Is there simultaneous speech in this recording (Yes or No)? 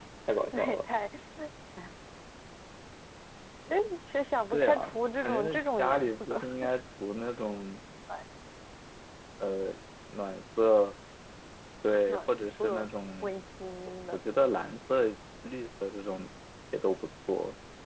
Yes